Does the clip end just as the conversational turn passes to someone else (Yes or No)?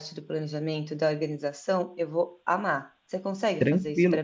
Yes